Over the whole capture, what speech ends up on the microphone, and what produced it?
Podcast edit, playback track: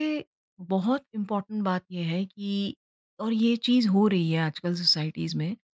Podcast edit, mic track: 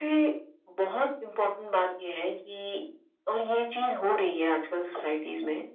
echo only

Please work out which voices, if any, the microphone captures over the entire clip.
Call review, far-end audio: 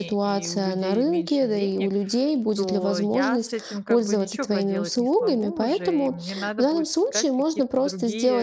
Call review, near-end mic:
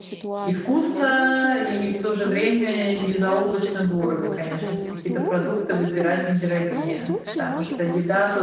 both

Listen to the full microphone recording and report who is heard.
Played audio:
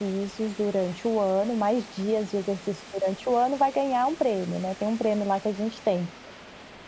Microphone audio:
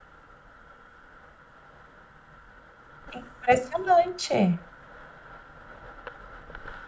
user only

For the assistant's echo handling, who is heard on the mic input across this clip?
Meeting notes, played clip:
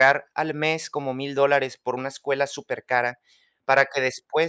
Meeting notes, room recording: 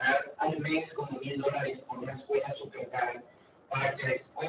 echo only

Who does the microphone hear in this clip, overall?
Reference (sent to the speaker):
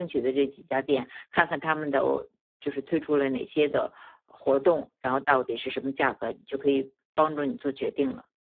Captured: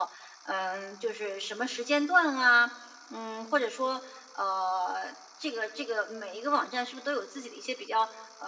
user only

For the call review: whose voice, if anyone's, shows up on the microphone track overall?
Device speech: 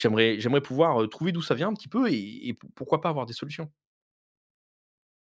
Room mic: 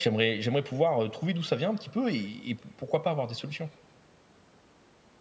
echo only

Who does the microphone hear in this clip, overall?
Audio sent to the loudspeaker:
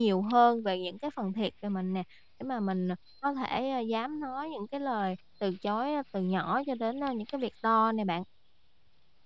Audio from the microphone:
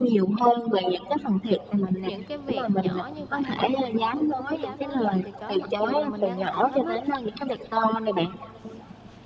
both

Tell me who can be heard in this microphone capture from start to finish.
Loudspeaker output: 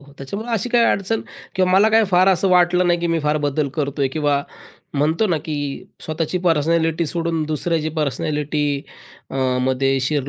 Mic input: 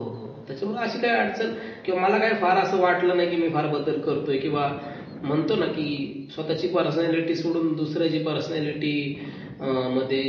echo only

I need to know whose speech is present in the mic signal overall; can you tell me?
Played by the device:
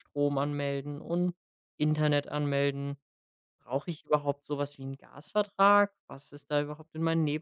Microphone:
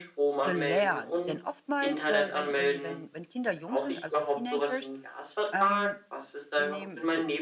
both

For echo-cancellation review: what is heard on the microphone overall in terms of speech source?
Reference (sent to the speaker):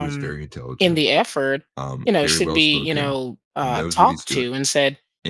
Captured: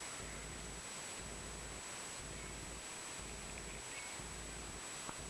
neither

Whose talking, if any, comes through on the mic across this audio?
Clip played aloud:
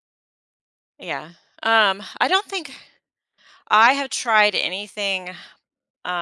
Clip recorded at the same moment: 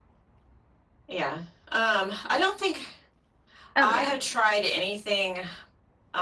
both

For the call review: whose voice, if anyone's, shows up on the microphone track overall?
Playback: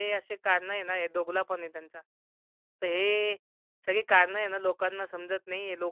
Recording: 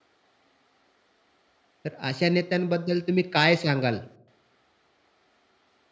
user only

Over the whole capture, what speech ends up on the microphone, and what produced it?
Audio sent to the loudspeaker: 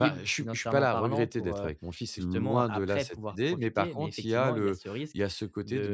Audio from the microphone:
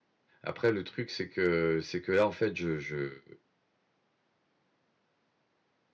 user only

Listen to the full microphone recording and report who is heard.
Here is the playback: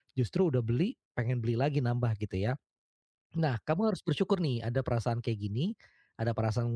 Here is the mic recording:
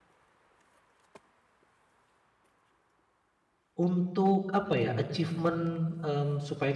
user only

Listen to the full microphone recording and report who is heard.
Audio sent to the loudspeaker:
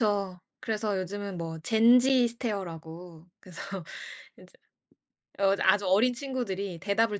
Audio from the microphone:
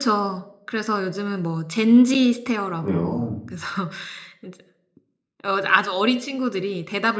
both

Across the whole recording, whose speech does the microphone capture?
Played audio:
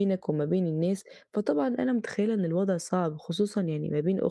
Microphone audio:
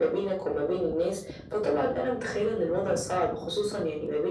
echo only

